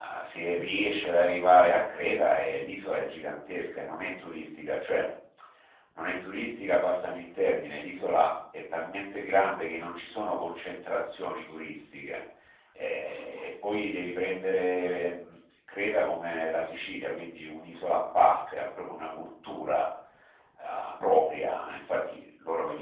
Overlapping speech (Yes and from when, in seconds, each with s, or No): No